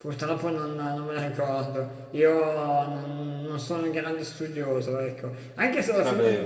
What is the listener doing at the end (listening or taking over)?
listening